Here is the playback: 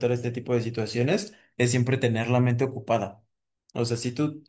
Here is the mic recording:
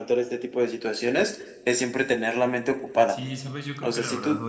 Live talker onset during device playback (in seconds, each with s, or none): 3.1 s